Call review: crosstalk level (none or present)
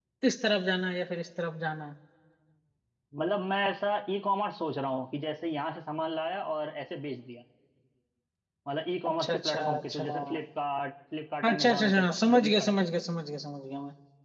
present